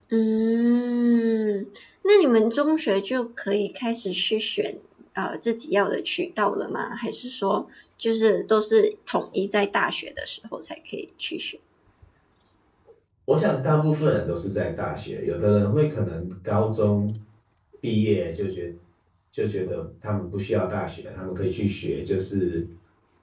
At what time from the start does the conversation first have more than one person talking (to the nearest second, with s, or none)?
none